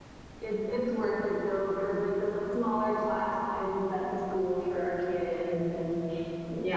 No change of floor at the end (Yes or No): No